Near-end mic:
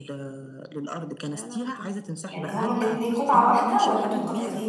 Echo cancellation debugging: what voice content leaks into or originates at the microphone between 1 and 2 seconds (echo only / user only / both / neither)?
echo only